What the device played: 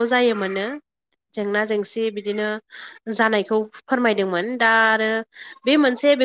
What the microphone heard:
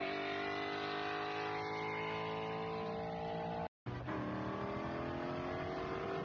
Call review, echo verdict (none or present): none